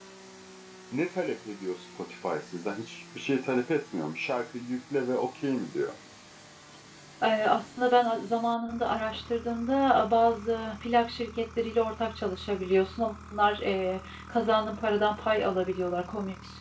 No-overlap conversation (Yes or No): Yes